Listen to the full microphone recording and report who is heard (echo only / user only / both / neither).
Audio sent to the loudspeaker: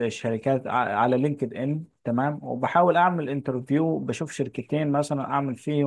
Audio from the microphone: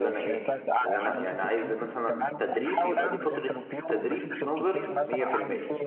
both